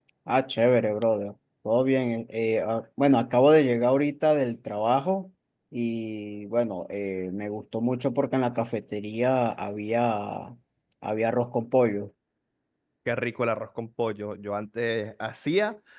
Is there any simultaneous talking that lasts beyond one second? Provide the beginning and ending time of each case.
none

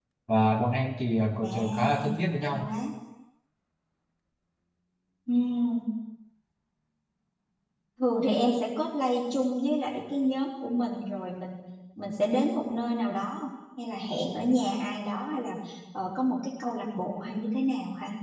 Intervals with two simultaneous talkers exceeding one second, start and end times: 1.4-2.7

